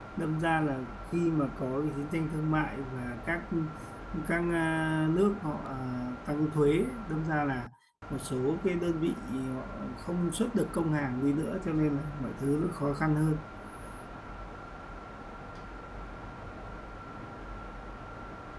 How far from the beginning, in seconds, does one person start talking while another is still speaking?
none

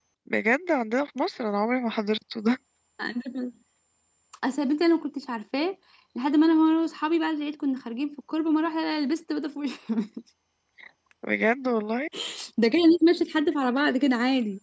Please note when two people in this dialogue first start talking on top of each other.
none

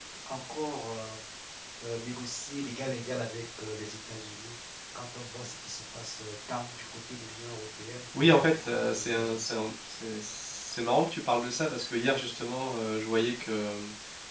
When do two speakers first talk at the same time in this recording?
8.1 s

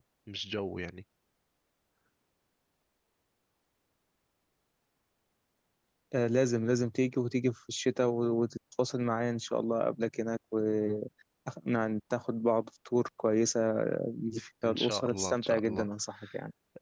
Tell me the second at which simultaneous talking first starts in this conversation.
14.6 s

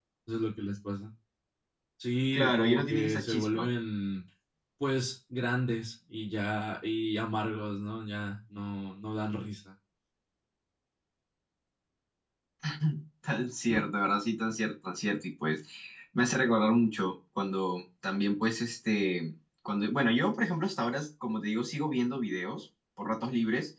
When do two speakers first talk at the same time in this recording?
2.3 s

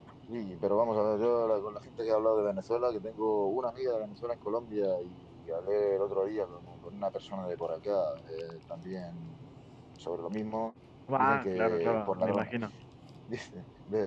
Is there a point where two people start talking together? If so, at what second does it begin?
11.2 s

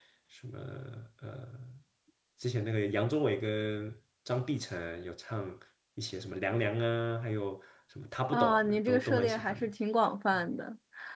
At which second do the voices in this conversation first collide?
8.3 s

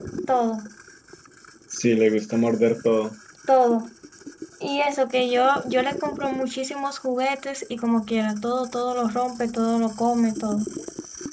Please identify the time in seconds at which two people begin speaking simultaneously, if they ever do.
none

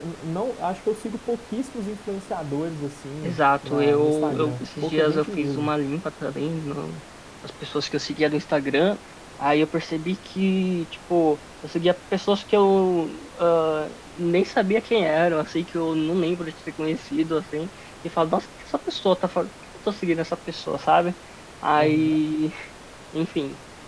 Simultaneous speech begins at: 3.2 s

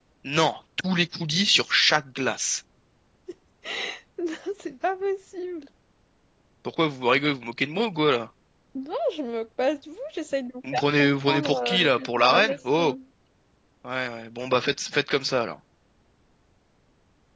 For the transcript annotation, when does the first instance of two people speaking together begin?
10.6 s

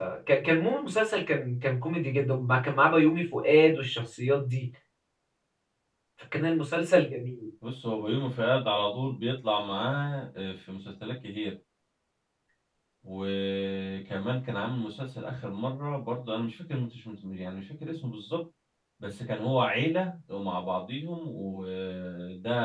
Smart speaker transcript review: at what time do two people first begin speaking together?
none

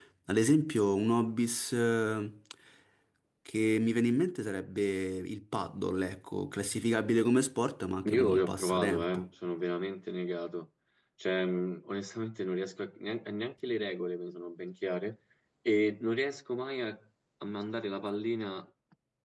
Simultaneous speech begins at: 8.1 s

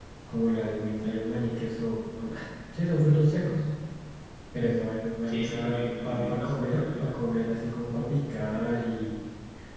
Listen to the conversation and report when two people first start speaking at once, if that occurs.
5.2 s

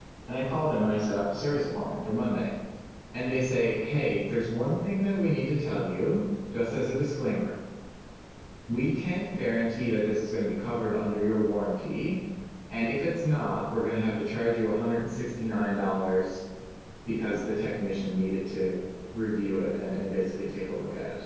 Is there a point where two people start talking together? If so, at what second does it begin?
none

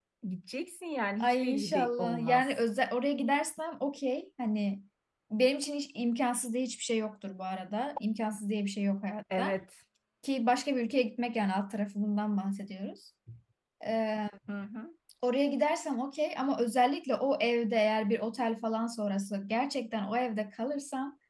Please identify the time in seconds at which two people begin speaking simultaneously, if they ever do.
1.2 s

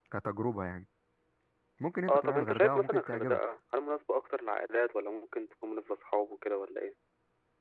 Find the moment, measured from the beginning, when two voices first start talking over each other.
2.1 s

